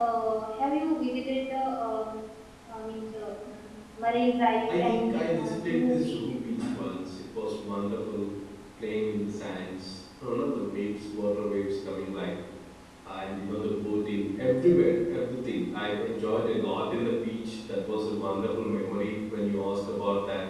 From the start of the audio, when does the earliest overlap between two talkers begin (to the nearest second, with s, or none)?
5 s